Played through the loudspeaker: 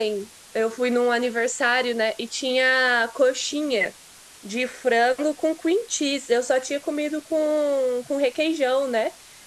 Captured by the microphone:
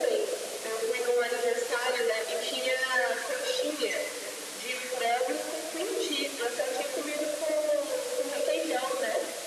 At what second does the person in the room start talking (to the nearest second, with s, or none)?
none